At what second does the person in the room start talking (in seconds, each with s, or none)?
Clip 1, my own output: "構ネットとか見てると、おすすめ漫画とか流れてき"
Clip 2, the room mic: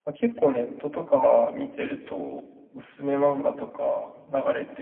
none